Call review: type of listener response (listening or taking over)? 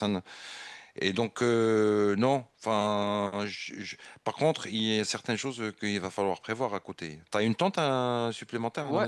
taking over